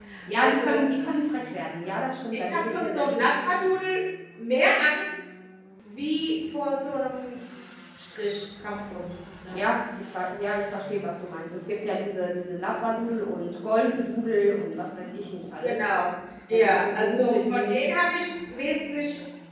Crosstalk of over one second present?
Yes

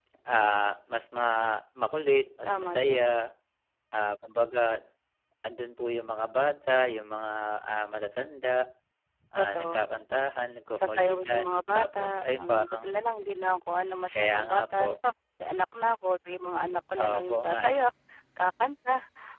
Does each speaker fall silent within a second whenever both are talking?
No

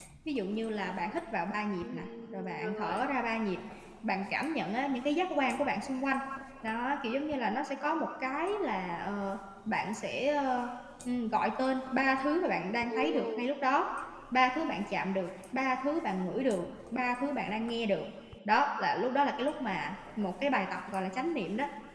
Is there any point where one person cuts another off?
Yes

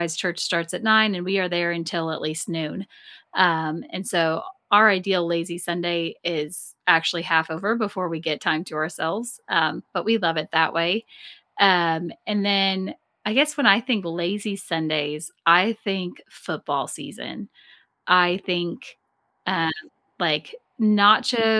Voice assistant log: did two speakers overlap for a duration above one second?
No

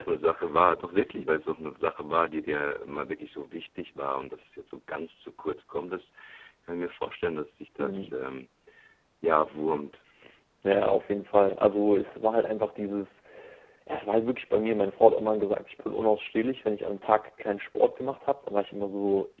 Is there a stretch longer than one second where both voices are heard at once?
No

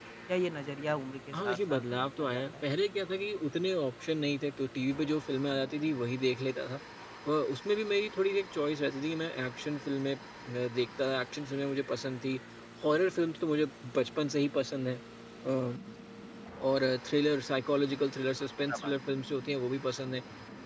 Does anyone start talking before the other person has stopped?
Yes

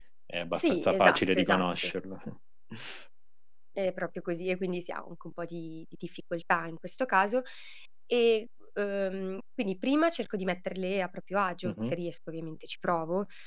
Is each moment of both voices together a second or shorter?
No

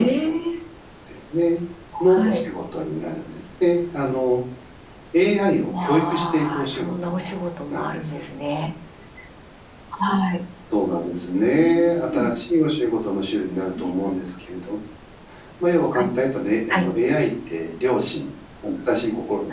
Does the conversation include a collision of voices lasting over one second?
Yes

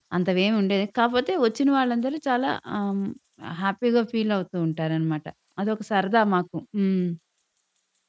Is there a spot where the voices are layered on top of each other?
No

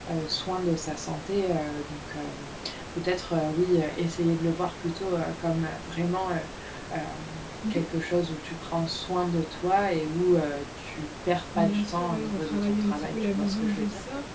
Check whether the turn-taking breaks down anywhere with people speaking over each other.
Yes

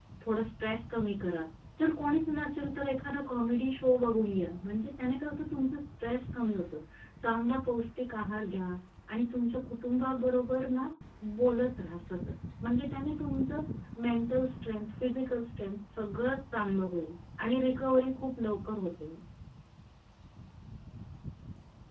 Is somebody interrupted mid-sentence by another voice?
No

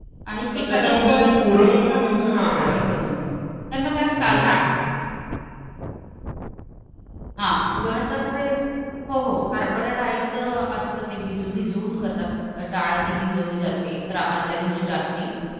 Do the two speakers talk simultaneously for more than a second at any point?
Yes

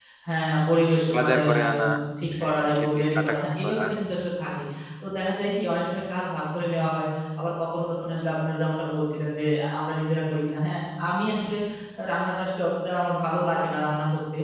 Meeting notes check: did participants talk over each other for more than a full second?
Yes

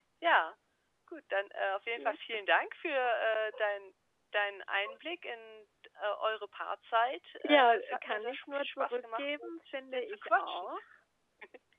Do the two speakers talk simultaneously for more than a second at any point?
Yes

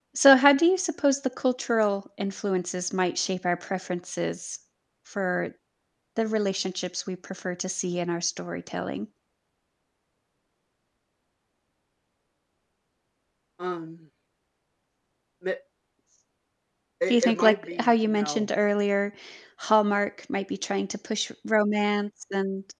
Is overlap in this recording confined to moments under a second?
No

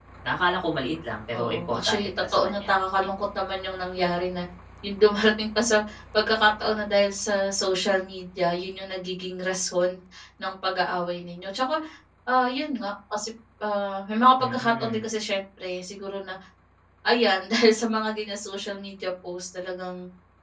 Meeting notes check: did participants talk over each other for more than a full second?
Yes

